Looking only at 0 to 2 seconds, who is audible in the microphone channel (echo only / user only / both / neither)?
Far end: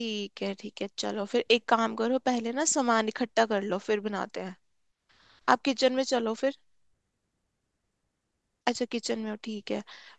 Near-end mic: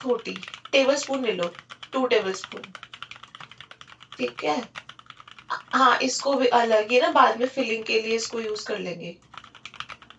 user only